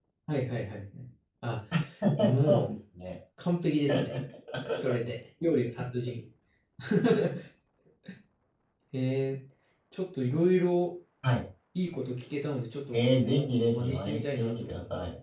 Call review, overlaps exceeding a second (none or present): present